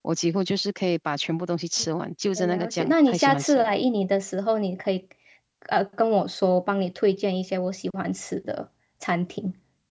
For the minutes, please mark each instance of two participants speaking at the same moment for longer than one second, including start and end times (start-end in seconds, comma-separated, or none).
2.4-3.7